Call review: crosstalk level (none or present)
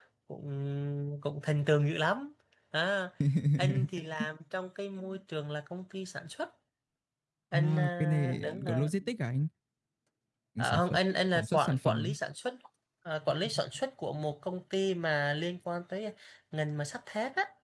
present